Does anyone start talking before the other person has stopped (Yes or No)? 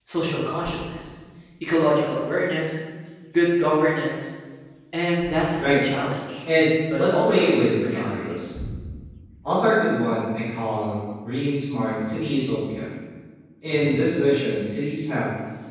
Yes